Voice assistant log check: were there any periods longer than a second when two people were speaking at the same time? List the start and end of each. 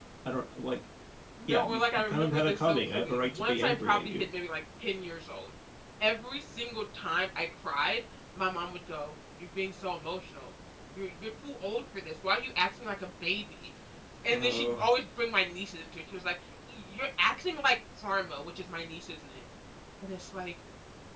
1.5-4.2

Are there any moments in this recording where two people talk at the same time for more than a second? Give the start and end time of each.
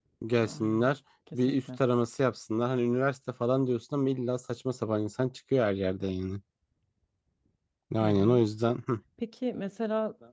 none

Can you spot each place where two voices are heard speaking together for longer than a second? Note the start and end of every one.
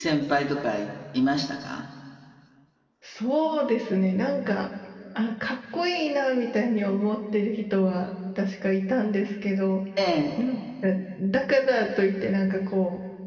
none

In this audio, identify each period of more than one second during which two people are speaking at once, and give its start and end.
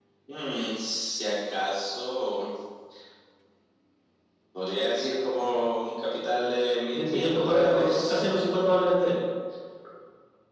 6.9-8.2

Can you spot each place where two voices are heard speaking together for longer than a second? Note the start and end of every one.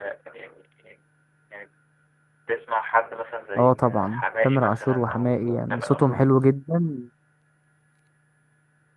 3.5-6.2

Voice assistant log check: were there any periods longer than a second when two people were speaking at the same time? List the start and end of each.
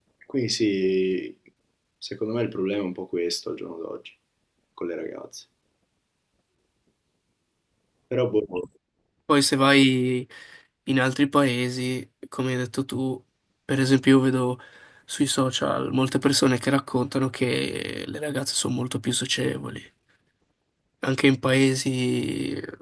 none

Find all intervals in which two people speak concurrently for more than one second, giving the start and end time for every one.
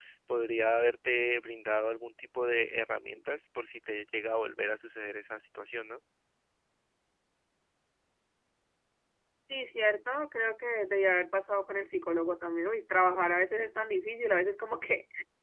none

